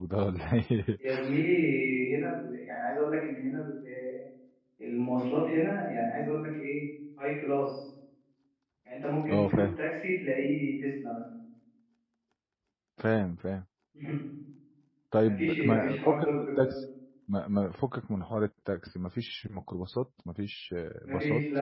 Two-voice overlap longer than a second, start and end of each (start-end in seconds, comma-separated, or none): 15.2-16.8